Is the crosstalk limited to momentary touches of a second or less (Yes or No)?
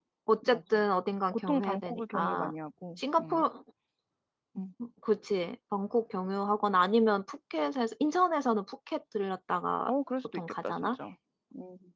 No